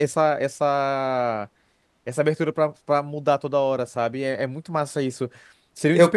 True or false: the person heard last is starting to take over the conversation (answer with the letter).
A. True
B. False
B